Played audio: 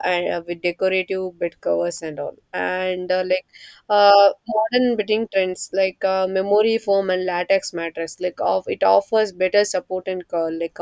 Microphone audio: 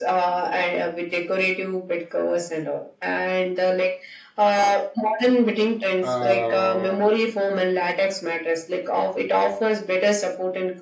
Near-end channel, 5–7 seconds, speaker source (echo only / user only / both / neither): both